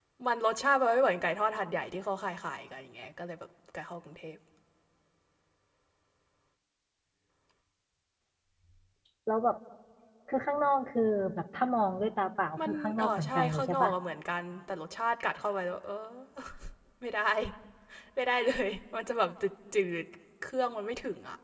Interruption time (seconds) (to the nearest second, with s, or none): 13 s